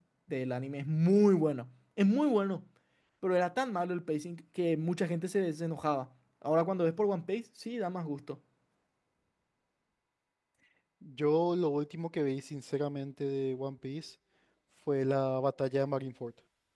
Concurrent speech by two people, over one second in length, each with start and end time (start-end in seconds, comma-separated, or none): none